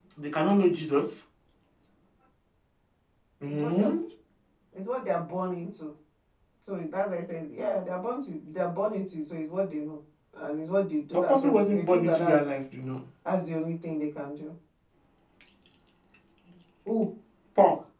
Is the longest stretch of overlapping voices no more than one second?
No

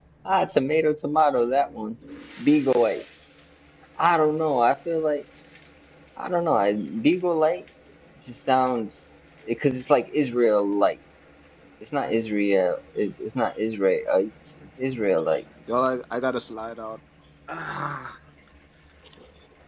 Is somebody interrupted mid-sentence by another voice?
No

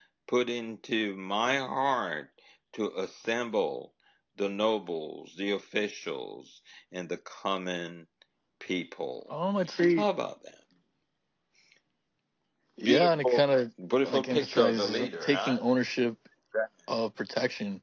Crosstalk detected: Yes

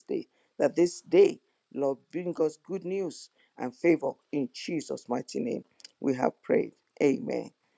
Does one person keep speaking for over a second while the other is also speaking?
No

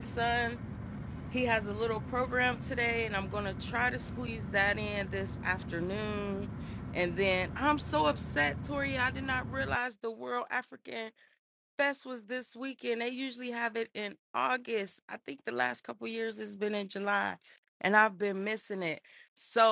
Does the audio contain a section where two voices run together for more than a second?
No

